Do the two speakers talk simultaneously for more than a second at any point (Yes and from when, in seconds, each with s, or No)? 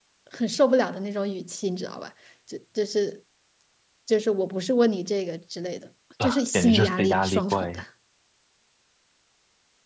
Yes, from 6.2 s